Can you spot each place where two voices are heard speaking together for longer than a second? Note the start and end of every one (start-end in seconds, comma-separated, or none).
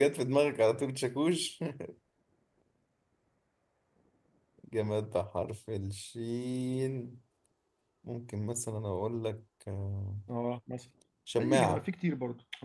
none